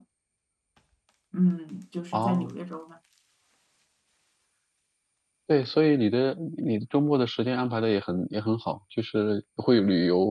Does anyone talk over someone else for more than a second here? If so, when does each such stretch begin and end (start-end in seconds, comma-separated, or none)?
none